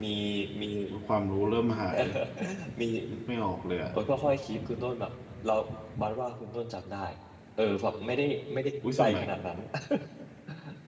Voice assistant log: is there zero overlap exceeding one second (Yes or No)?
Yes